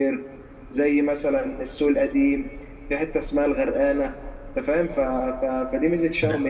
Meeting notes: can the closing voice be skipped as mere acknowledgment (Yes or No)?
Yes